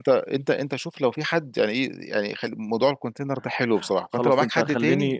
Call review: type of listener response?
taking over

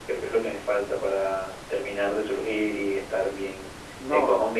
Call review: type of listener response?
listening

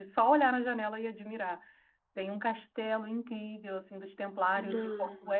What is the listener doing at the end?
listening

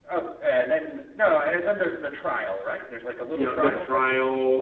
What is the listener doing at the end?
taking over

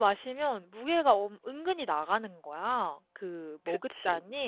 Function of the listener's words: listening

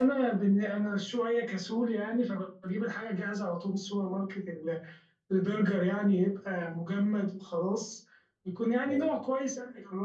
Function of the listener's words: listening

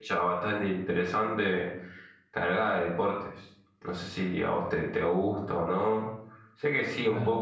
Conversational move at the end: taking over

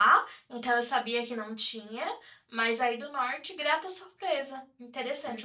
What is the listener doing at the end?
taking over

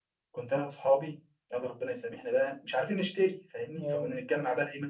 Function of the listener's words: listening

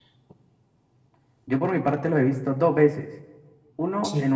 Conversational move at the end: listening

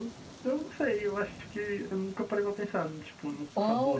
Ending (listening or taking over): taking over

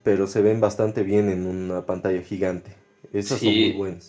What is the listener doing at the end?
taking over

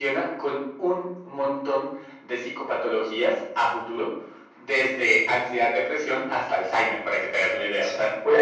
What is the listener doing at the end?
taking over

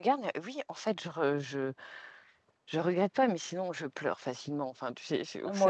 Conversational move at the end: listening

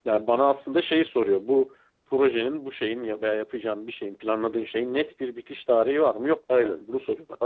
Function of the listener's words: taking over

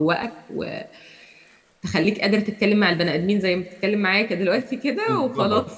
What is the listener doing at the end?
taking over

